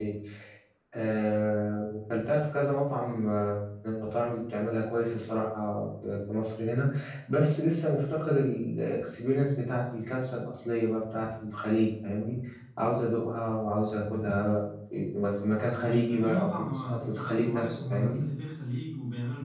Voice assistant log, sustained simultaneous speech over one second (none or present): present